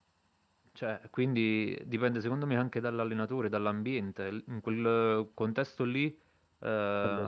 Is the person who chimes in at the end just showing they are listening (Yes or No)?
Yes